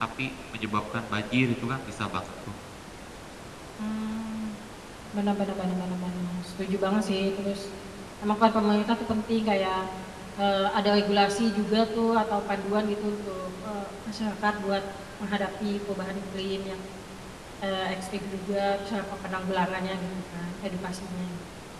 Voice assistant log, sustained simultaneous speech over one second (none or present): none